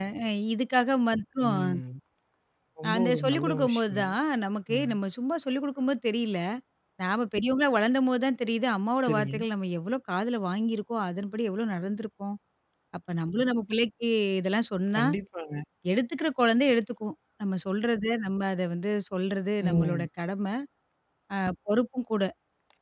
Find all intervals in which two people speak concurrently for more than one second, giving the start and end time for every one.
2.9-4.1

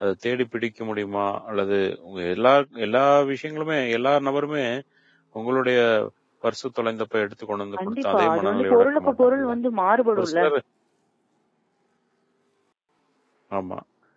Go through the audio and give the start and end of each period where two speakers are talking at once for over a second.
7.9-9.5

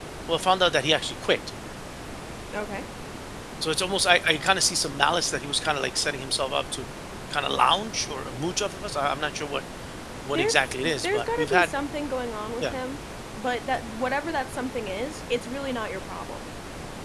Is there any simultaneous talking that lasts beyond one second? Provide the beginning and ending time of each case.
10.3-11.7

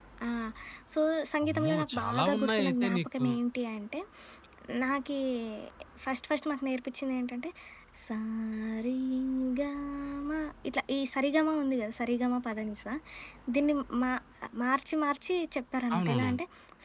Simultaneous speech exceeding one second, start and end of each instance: 1.4-3.2

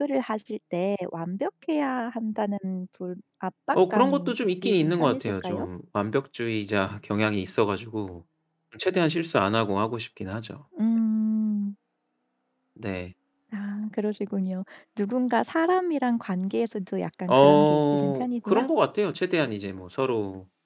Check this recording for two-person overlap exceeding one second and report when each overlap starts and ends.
3.7-5.7, 17.3-18.6

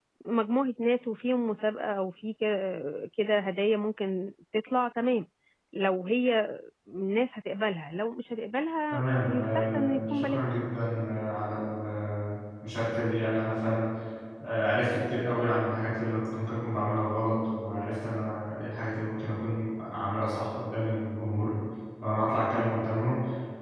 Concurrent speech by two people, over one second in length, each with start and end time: 8.9-10.4

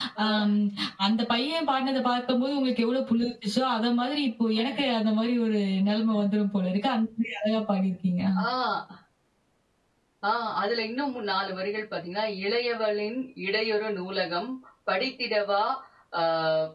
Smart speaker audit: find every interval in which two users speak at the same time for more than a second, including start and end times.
none

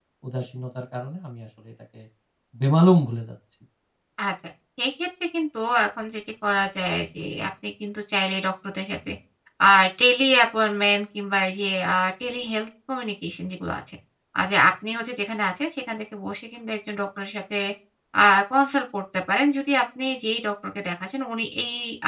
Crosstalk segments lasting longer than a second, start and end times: none

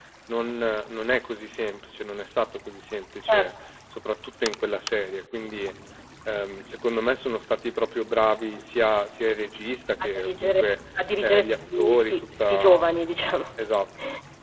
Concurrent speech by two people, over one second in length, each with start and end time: 11.2-12.8

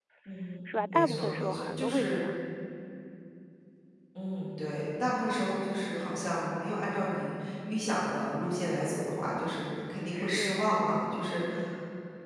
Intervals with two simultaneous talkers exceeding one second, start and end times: 0.9-2.2

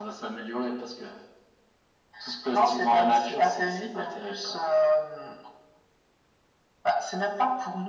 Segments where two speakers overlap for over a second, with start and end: 2.5-4.7

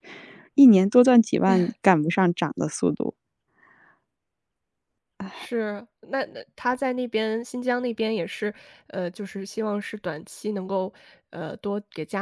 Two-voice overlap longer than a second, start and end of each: none

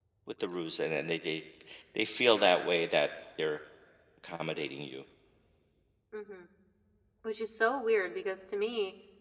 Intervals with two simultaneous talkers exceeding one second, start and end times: none

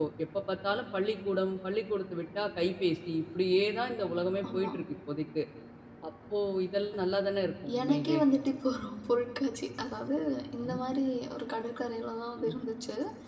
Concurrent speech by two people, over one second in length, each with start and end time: none

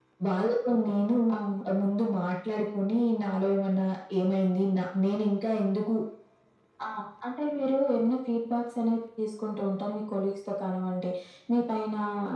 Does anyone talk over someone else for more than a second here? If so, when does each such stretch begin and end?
none

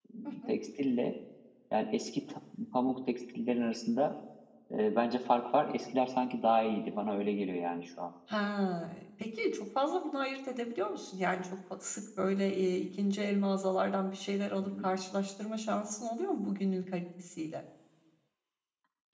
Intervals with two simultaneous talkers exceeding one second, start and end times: none

